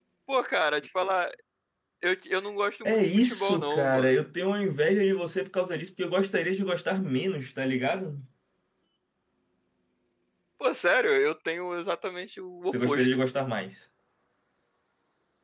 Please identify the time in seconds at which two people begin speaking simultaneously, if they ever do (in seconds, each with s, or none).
2.8 s